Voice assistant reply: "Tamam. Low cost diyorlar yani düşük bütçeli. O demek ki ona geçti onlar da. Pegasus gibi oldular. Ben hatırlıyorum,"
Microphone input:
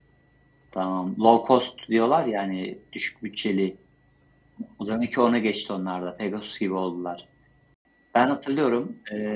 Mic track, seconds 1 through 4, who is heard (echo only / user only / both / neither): echo only